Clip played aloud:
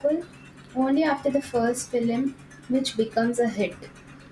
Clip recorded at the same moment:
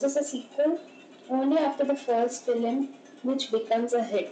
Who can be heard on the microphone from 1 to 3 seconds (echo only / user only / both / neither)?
echo only